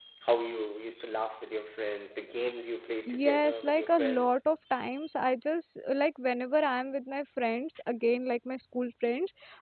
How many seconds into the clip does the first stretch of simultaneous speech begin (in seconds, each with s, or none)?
3.1 s